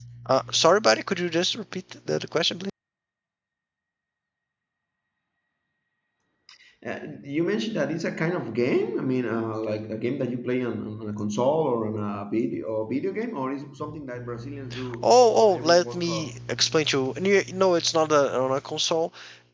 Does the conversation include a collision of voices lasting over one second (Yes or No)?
Yes